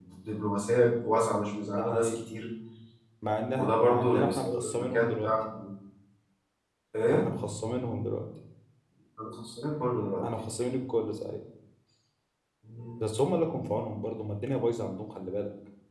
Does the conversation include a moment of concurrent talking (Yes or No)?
Yes